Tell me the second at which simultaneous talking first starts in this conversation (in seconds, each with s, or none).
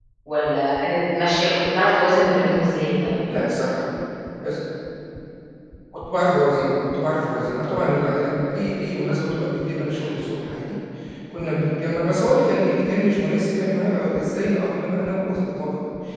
none